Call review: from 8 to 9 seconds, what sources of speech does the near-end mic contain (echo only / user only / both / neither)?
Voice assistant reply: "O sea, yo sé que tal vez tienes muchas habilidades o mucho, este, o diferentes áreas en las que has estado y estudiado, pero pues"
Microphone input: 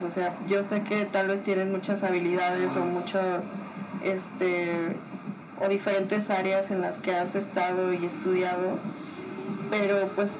echo only